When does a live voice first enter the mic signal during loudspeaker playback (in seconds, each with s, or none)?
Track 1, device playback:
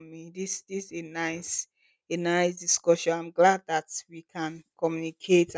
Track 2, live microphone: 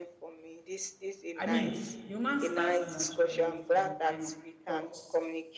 1.4 s